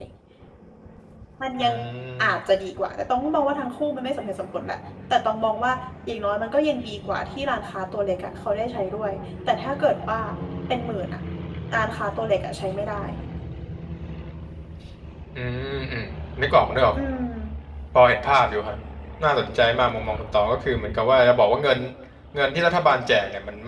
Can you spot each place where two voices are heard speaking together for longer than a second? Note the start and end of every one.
none

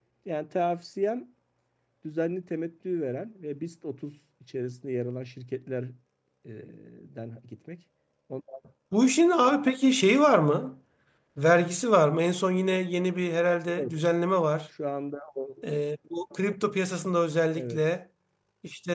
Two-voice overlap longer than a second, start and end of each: none

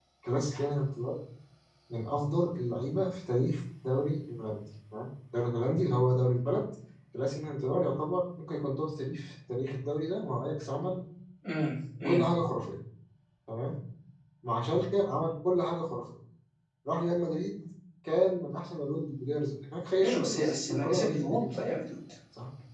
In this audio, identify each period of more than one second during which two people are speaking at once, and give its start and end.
20.0-21.6

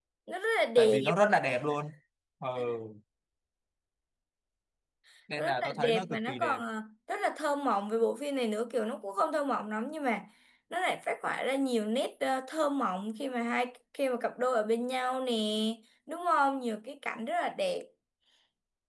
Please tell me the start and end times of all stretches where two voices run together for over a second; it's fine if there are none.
5.4-6.6

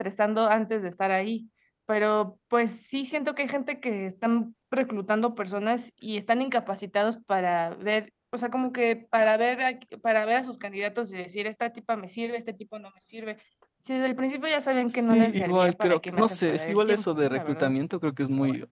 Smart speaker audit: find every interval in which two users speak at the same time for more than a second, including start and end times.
14.9-17.7

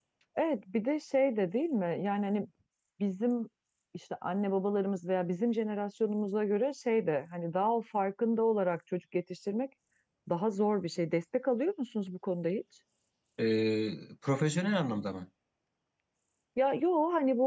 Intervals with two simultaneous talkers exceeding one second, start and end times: none

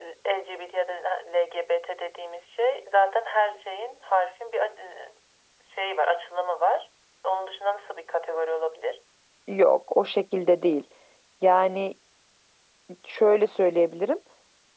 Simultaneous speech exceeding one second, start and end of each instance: none

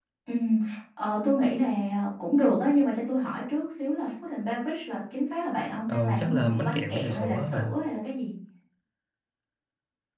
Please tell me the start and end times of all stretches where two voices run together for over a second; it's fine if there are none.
5.9-7.7

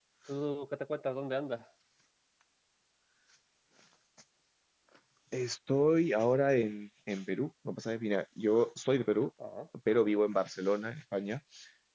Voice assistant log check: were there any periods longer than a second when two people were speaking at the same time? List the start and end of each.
none

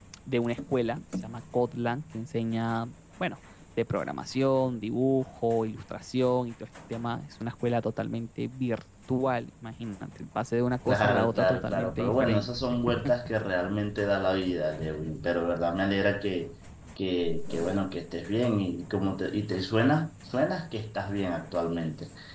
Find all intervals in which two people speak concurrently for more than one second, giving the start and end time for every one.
10.8-12.6

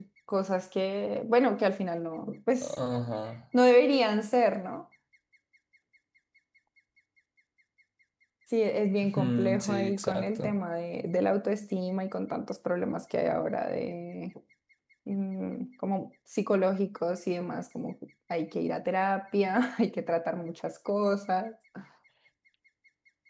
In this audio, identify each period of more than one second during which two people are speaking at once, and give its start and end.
9.2-10.6

